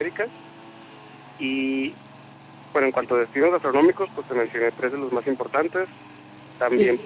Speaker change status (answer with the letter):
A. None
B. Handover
B